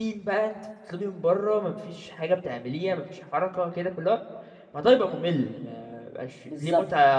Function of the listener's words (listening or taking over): listening